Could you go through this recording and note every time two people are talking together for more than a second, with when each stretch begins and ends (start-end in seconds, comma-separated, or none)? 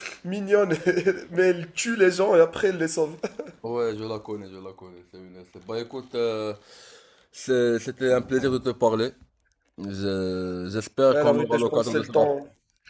11.1-12.3